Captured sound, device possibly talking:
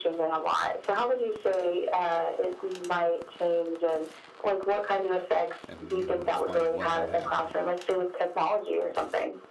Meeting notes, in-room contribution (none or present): present